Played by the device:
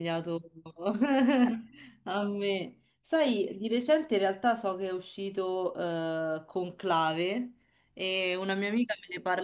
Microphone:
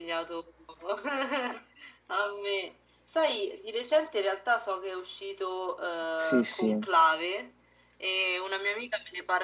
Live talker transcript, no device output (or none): Sì, sì.